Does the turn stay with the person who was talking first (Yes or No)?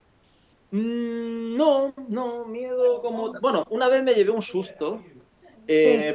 Yes